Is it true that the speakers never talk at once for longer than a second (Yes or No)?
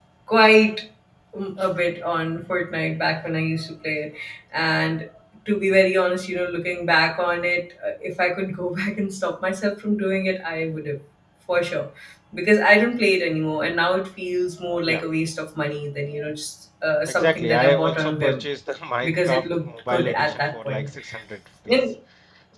No